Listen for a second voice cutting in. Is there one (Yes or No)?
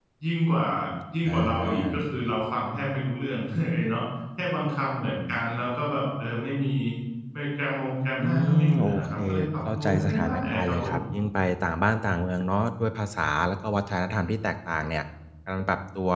Yes